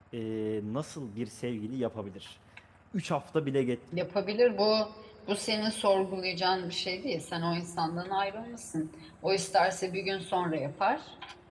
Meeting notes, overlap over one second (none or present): none